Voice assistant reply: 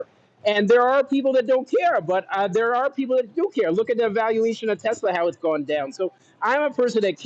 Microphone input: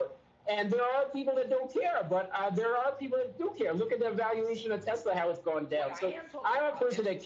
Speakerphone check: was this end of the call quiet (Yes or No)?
No